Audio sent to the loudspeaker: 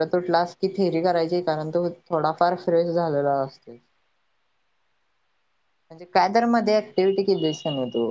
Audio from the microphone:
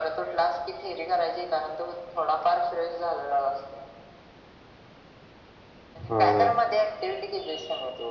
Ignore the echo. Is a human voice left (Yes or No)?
Yes